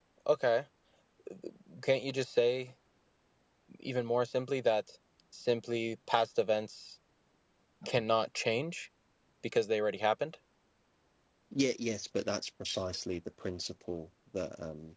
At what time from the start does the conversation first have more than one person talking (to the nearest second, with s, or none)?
none